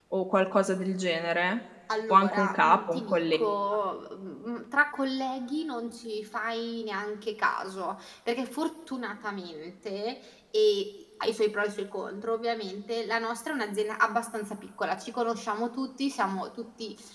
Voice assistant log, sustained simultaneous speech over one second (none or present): present